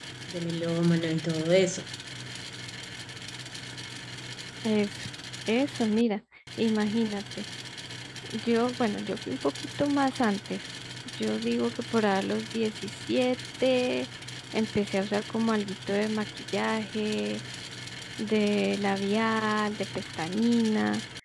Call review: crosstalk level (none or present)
none